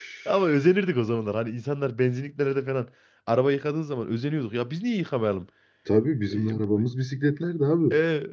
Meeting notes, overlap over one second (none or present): none